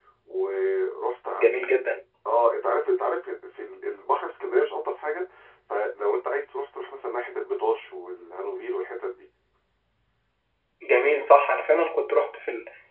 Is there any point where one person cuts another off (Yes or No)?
No